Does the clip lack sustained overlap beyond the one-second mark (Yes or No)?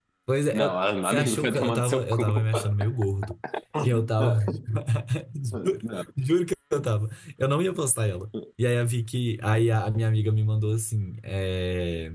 No